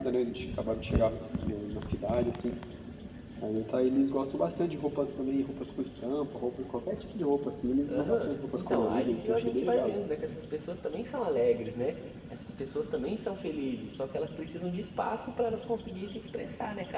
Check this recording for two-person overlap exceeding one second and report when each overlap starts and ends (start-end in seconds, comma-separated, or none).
7.9-10.0